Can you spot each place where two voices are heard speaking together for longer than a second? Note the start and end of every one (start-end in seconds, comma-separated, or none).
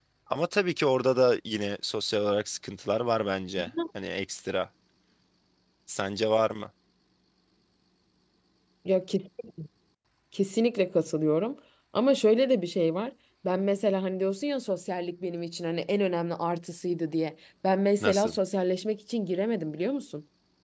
none